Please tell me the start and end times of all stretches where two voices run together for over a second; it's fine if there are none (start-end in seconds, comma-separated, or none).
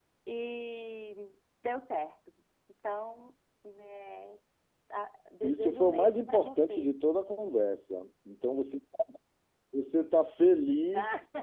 5.4-6.9